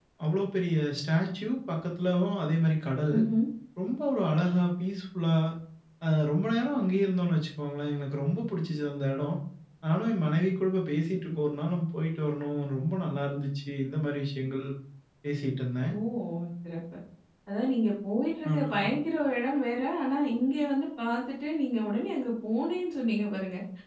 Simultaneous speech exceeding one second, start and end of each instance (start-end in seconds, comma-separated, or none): none